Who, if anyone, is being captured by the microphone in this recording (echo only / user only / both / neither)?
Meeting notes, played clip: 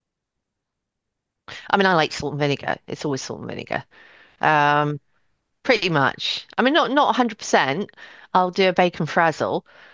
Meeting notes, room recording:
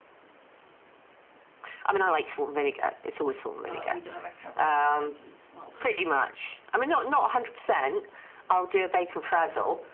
both